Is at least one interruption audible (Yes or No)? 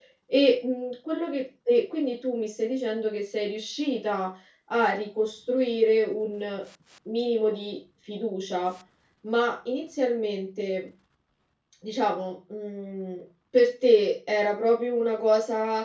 No